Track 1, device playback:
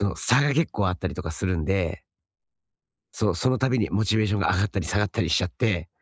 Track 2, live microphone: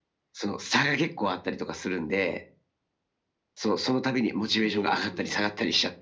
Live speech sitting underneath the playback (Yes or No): Yes